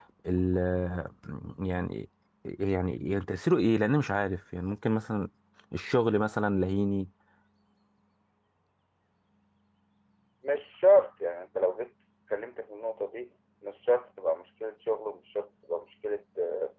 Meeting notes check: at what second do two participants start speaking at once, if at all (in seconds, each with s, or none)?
none